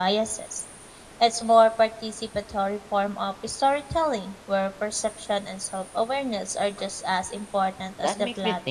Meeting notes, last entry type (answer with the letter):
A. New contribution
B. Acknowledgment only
A